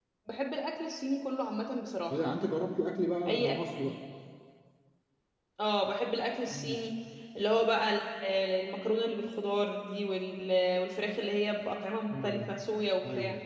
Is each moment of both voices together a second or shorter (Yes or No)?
Yes